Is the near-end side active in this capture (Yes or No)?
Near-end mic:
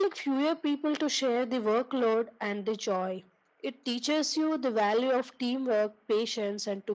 No